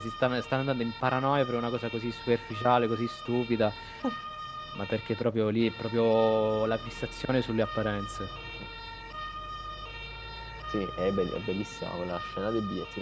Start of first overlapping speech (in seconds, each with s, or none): none